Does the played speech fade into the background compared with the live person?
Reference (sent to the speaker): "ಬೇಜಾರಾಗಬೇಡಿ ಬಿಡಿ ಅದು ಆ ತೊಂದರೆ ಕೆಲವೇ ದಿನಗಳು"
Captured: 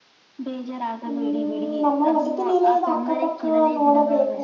Yes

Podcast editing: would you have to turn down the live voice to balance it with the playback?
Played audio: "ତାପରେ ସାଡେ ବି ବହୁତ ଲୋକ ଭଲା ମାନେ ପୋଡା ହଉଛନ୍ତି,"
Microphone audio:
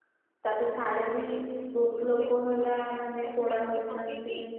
No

